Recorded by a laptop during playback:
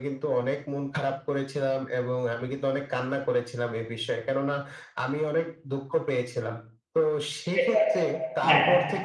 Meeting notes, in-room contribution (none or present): present